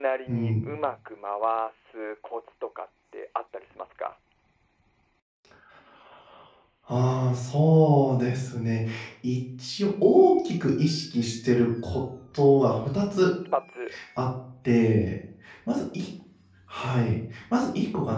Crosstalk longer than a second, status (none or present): none